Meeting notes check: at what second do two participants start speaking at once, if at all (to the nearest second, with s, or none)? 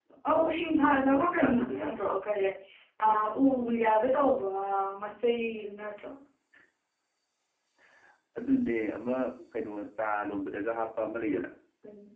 1 s